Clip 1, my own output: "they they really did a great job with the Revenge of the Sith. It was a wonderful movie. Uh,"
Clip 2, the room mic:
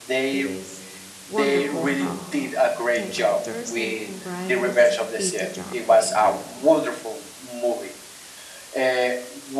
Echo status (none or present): present